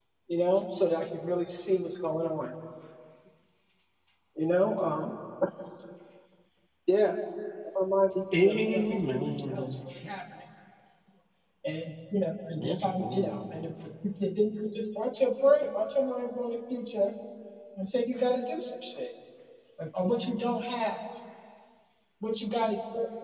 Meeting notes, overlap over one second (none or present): present